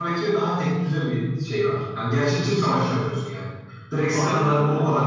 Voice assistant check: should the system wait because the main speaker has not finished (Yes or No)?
Yes